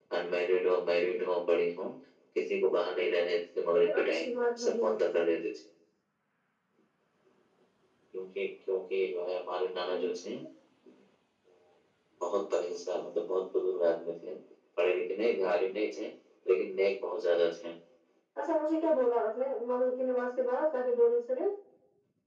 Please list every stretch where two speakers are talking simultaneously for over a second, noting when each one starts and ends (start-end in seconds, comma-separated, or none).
3.7-5.0